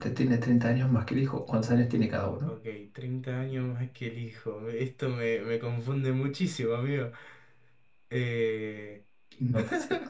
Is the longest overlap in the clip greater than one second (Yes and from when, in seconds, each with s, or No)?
No